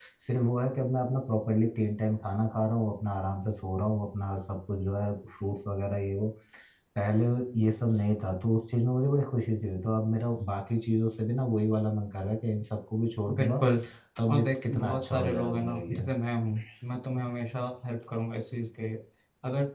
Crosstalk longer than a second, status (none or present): present